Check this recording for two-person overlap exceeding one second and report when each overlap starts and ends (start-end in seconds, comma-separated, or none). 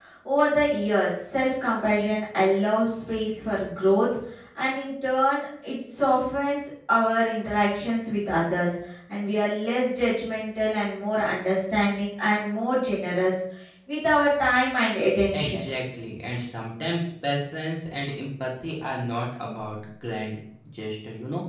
none